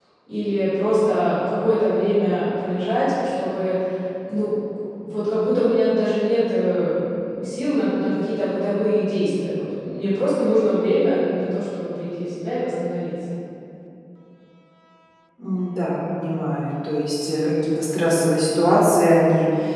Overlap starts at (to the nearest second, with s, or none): none